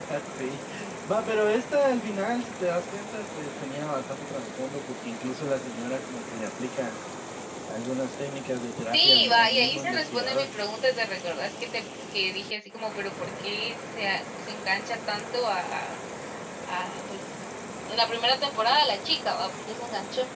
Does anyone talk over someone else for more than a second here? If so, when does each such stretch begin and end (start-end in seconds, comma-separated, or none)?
8.9-10.5